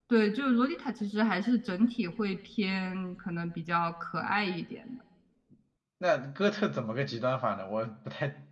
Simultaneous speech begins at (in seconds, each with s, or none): none